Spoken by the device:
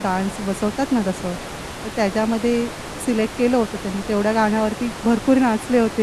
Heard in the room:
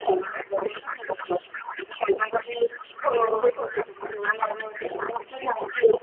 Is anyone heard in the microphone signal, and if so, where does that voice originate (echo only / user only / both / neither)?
both